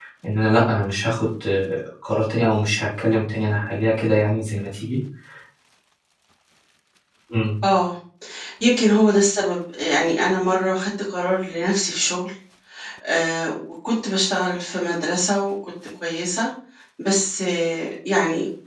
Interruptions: none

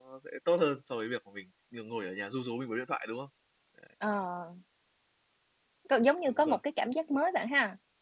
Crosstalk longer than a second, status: none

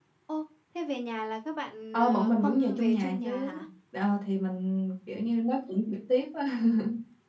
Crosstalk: present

